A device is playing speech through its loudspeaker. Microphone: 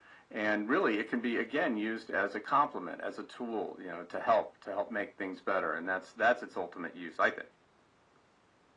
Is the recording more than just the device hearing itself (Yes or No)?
No